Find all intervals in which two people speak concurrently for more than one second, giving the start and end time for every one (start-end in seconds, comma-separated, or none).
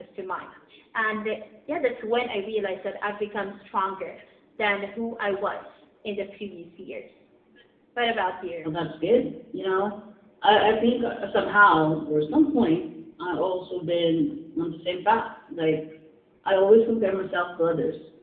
none